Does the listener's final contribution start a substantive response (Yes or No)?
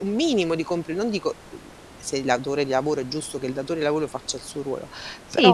Yes